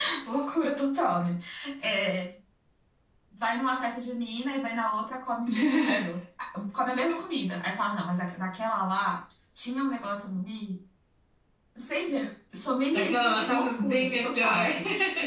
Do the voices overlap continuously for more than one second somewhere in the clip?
Yes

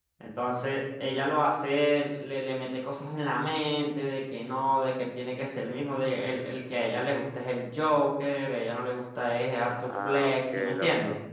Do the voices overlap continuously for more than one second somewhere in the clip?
Yes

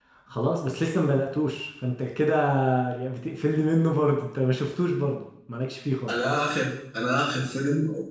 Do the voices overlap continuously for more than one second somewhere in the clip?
No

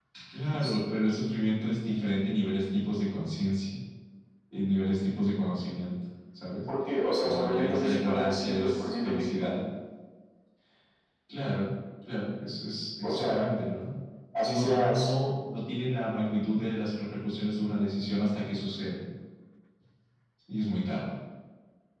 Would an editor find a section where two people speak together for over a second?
Yes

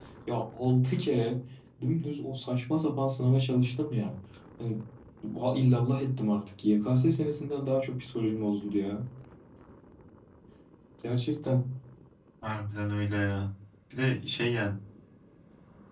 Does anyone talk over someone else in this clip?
No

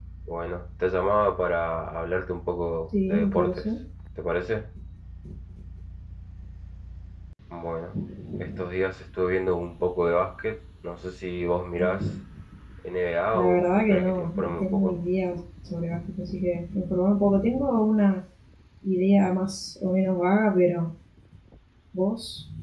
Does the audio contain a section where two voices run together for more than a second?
Yes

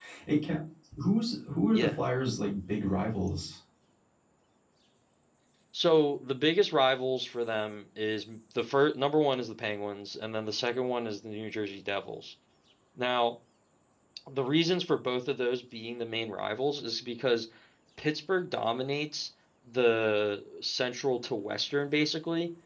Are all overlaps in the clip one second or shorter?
Yes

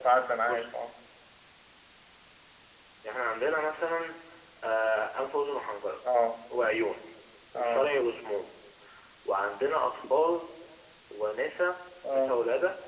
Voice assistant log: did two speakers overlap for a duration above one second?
No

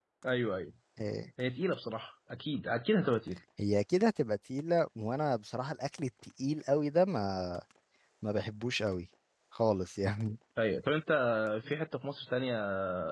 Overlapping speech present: No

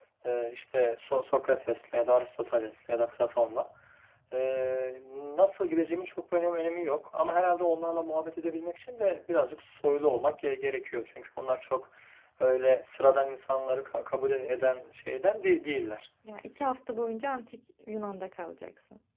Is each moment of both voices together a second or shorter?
Yes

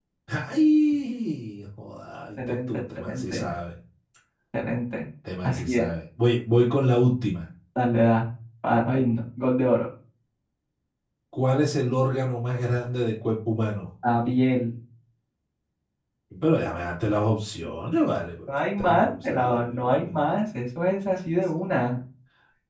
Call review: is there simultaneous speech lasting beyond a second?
Yes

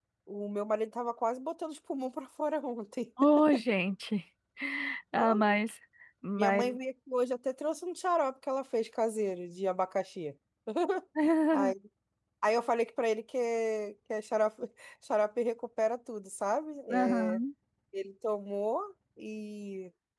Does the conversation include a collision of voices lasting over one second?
No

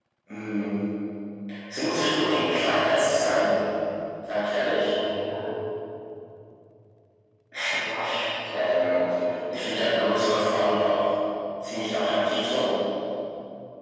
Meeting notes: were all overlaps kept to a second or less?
No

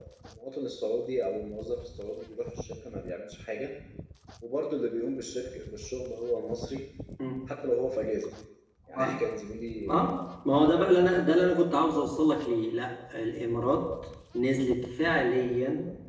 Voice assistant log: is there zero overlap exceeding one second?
Yes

